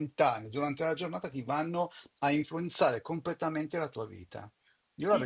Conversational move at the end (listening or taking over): taking over